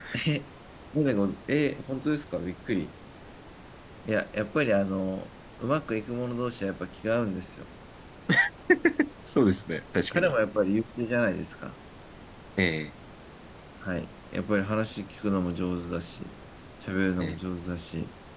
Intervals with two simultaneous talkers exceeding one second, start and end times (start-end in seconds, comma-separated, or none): none